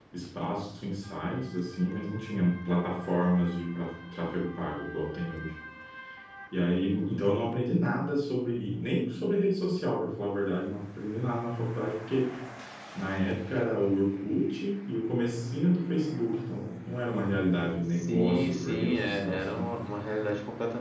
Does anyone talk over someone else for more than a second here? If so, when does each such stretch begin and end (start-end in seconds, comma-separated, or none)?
17.9-19.7